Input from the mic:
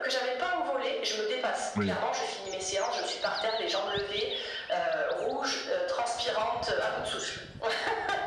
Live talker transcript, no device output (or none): Oui.